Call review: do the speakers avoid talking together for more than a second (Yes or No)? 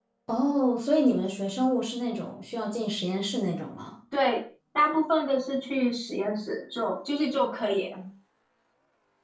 Yes